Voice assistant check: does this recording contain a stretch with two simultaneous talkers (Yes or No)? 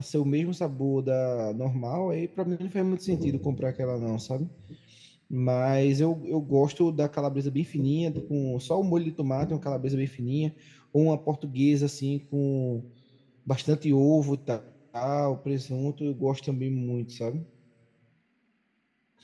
No